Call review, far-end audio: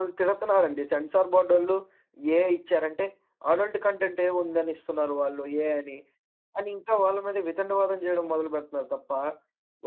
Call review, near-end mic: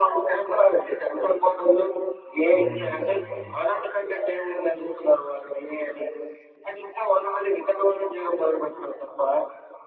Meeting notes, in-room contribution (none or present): present